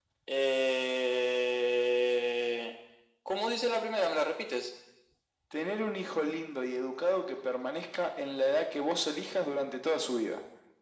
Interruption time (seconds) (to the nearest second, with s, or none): none